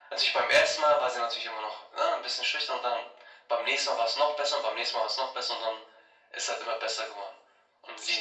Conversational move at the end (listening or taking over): listening